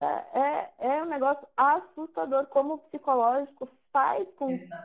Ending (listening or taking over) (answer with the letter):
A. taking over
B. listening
B